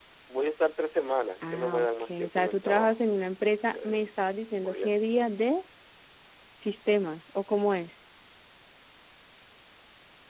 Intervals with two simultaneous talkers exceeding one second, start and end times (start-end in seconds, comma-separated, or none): 1.5-3.0